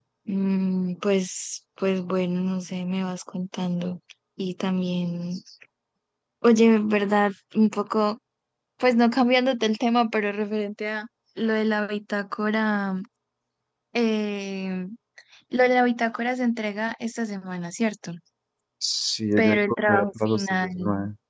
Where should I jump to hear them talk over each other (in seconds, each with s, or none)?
19.4 s